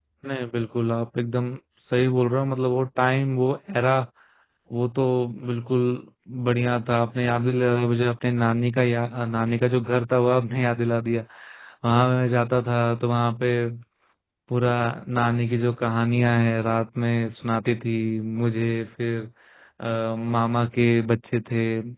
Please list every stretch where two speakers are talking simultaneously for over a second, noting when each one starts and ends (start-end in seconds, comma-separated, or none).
none